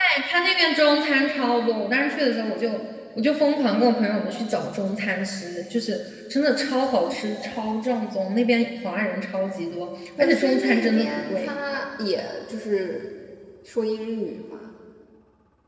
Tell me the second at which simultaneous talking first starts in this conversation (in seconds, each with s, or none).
10.2 s